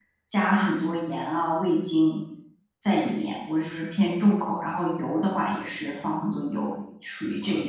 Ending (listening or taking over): taking over